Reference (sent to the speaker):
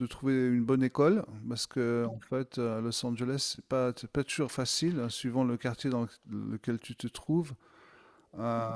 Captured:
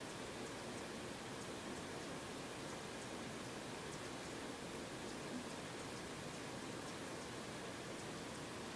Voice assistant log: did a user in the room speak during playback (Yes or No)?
No